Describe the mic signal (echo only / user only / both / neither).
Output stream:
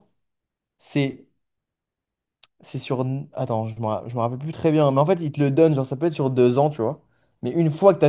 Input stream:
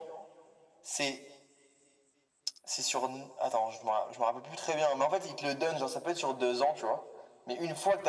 echo only